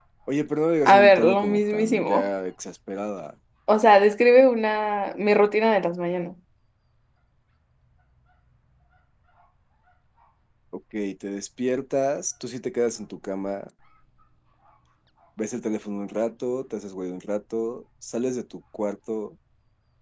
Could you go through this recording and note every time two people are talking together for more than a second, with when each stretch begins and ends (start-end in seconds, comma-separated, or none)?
0.9-2.3